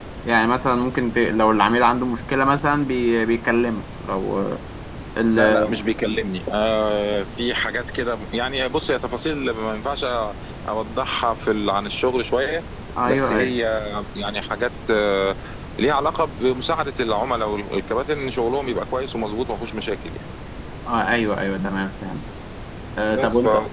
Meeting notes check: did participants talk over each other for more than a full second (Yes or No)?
No